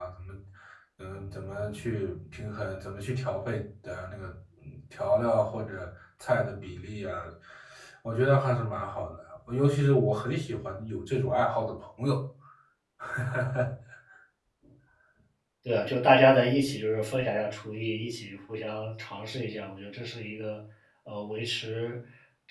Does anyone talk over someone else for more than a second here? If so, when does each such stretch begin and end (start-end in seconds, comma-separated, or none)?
none